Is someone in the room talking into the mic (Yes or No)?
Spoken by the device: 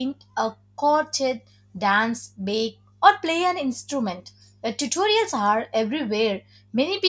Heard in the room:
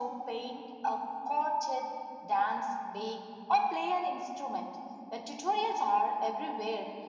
No